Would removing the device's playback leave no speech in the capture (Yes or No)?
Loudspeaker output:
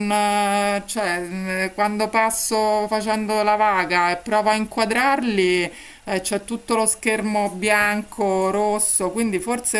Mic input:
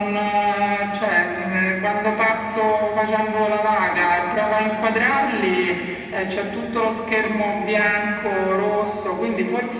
Yes